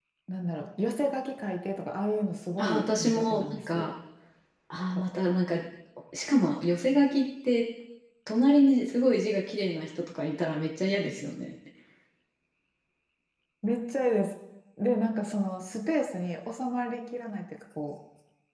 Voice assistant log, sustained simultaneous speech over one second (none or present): present